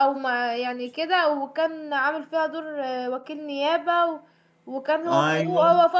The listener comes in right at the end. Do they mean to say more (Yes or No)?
No